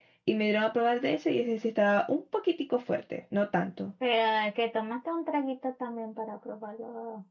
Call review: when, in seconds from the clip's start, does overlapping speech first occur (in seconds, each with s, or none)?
none